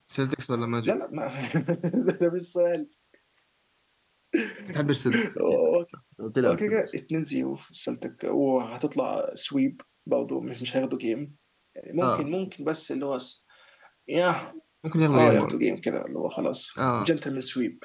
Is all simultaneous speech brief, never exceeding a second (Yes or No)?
Yes